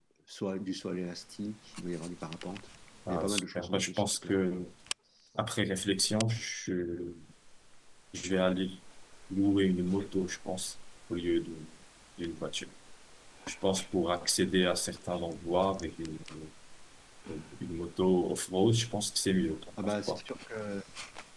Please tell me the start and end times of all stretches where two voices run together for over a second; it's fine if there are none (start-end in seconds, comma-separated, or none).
3.1-4.3